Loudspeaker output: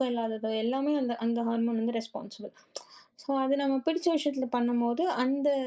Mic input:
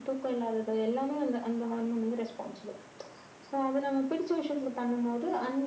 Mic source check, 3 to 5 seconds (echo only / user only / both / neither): echo only